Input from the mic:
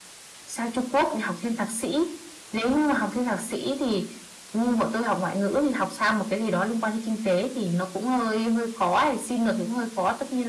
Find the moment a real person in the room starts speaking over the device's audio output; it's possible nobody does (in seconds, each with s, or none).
none